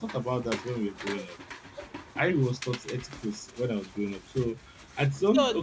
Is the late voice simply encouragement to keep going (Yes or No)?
No